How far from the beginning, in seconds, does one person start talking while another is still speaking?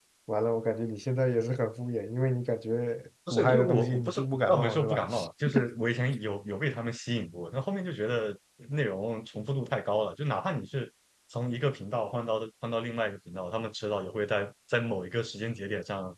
3.3 s

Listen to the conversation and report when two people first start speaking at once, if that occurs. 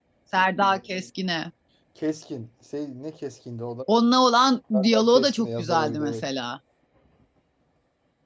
4.7 s

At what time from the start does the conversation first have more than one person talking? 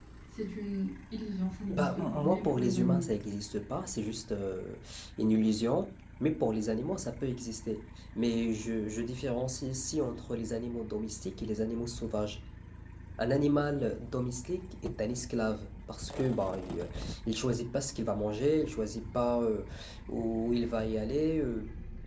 1.7 s

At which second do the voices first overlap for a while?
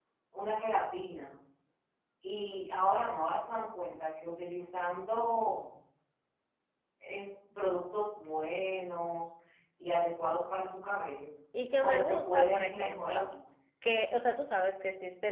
11.8 s

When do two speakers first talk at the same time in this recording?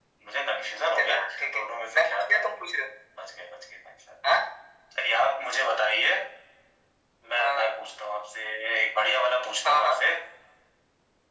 1.0 s

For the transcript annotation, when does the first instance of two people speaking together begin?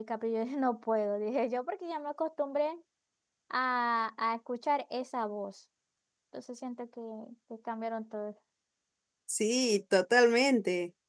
none

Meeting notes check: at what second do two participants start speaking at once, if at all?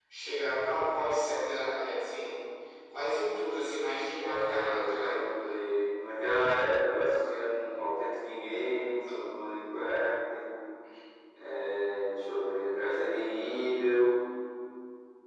4.2 s

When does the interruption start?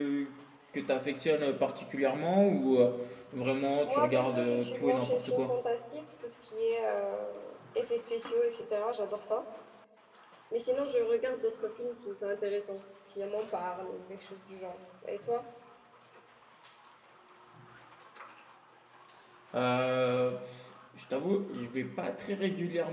3.8 s

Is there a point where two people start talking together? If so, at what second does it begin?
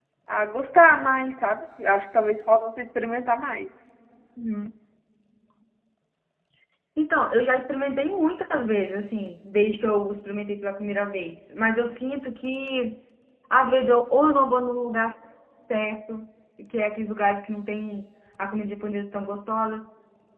none

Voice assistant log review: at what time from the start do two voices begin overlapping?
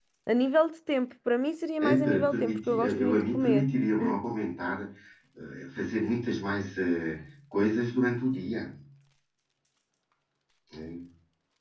1.8 s

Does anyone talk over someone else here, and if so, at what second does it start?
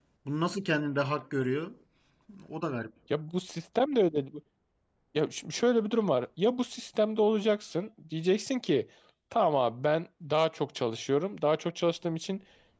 none

